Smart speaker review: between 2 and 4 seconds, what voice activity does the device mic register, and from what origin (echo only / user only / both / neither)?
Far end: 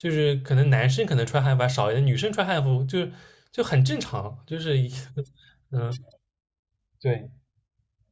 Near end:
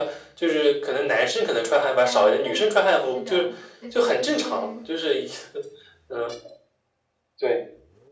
both